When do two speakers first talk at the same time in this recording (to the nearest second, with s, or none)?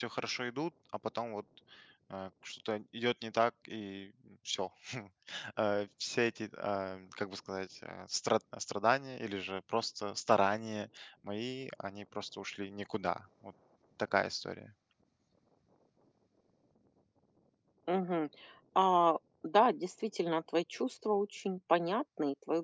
none